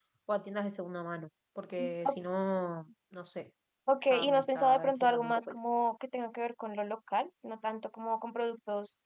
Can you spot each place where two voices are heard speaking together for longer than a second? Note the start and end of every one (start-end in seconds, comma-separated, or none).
4.1-5.5